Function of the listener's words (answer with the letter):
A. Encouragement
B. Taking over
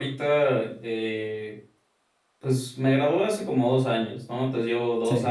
A